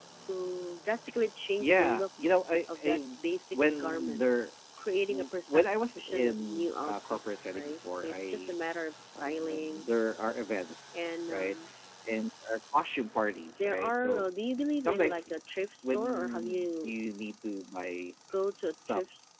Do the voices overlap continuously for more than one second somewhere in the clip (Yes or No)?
Yes